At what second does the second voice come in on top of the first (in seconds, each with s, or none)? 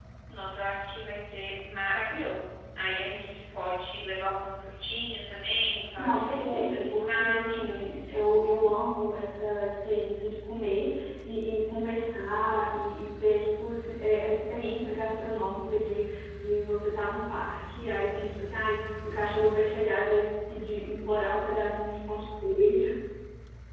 6.0 s